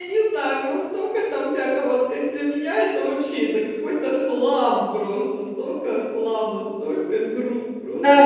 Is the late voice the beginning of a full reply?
Yes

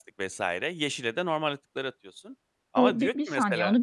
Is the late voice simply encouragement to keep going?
No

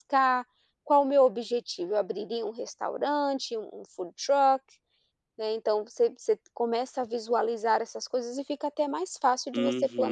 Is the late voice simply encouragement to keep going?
No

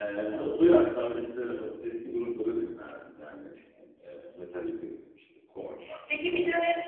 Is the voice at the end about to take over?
Yes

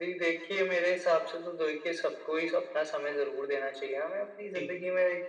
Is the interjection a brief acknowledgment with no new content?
Yes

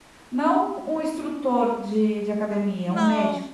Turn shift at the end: Yes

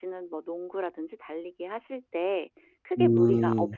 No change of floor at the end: Yes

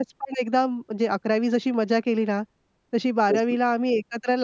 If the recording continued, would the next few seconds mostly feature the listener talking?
No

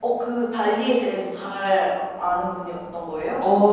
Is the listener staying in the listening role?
No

